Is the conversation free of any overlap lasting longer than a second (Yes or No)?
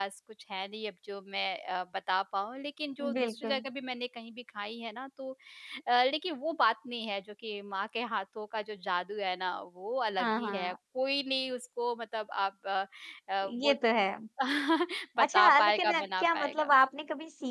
No